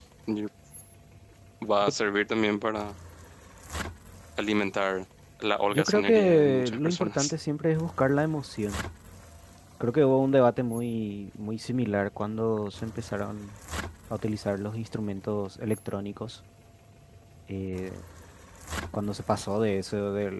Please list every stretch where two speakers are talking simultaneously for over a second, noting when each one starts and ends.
5.7-7.3

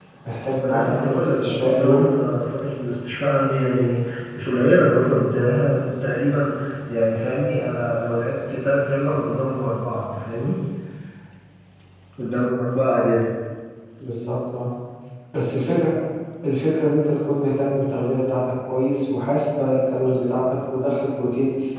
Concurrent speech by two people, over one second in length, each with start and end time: 0.6-2.1

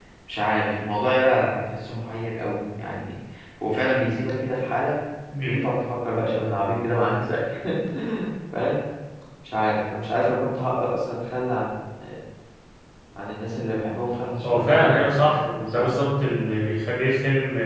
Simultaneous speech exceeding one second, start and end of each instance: 14.4-15.9

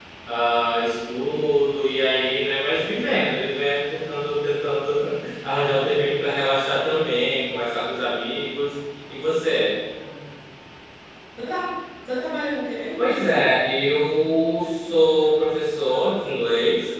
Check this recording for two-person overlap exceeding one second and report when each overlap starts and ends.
none

